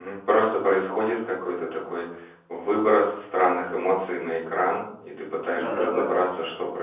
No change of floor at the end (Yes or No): Yes